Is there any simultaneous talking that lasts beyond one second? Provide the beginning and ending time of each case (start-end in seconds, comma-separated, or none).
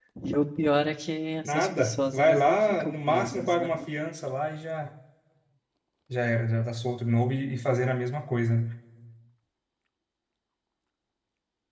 1.4-3.7